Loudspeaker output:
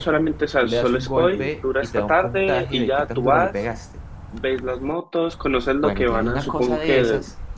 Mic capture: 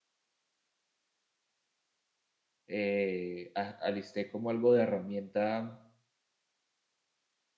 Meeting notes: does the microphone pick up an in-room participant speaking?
Yes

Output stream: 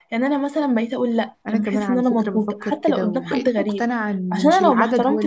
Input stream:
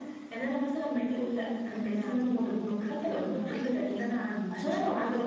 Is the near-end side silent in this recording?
Yes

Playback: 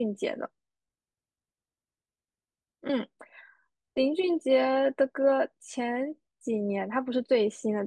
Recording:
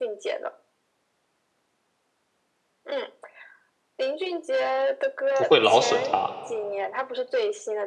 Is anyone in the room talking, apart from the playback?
Yes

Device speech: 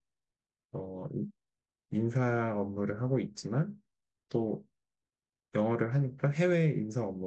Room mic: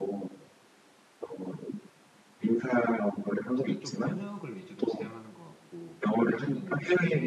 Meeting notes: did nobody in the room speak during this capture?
No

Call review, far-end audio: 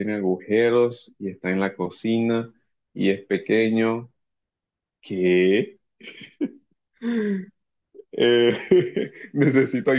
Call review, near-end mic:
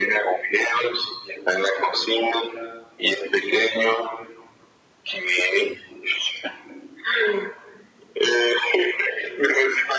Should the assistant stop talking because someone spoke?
No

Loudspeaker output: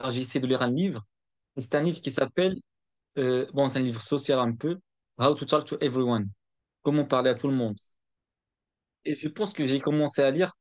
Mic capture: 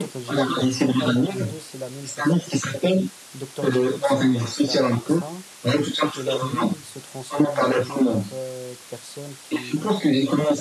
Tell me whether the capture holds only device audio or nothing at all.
No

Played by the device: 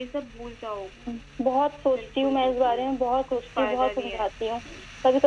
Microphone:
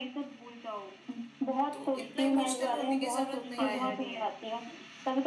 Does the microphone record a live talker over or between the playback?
Yes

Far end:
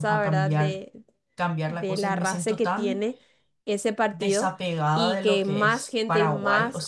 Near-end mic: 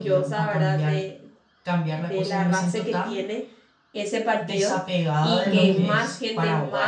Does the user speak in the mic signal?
Yes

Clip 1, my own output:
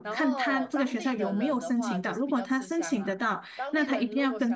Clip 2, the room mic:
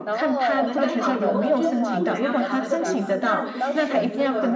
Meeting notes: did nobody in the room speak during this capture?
No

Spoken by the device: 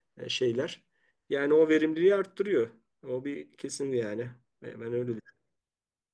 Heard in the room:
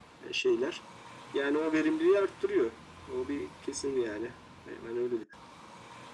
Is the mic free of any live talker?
Yes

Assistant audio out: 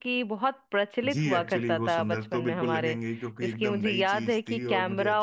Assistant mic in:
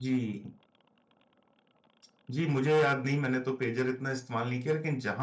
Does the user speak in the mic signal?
Yes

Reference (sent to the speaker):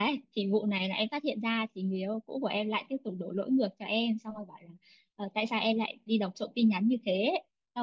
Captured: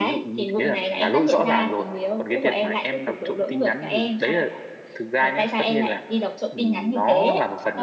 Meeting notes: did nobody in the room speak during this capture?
No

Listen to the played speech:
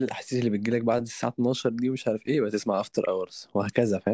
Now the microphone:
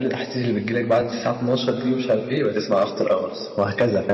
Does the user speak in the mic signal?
Yes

